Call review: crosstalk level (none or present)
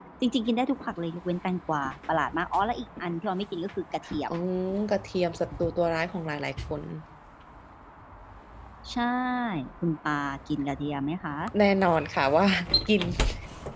none